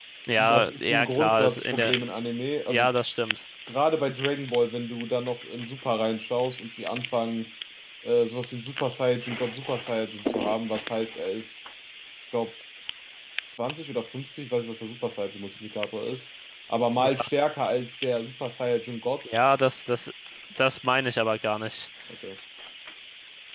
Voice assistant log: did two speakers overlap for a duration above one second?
Yes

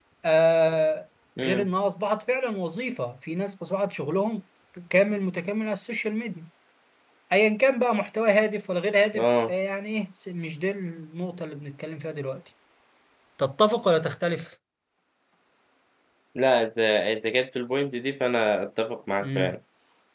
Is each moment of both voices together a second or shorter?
Yes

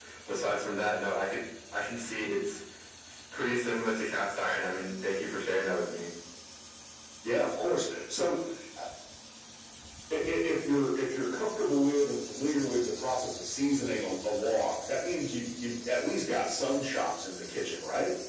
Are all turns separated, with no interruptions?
Yes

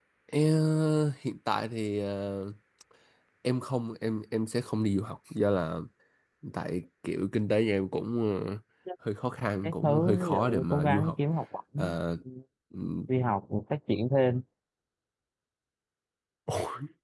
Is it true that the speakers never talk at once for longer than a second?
No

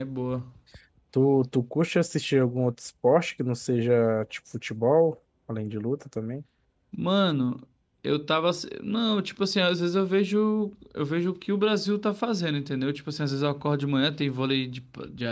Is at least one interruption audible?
No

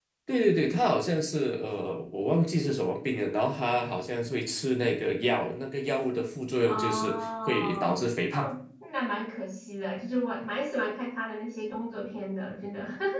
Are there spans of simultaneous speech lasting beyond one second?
Yes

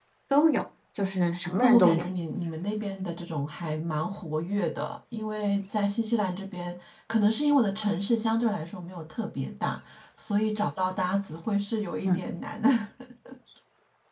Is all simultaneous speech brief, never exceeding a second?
Yes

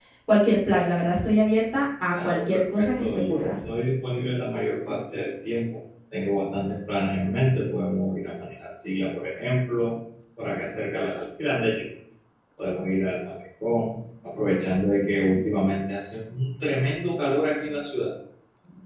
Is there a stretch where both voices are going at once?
Yes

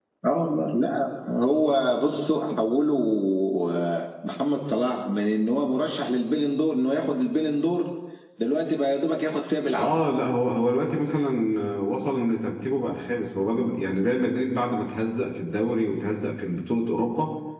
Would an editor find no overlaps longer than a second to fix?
Yes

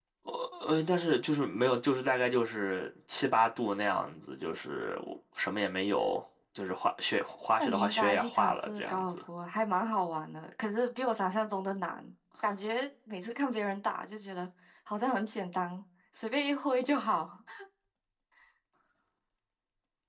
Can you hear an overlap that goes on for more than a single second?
Yes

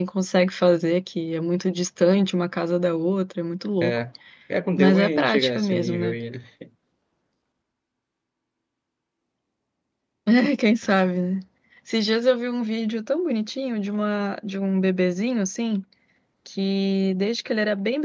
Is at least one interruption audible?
Yes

